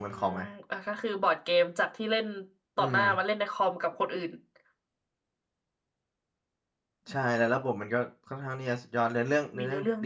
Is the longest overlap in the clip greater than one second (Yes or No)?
No